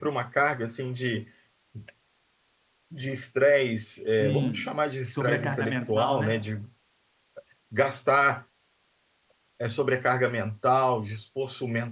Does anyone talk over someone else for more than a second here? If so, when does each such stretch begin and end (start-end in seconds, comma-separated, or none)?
4.2-6.4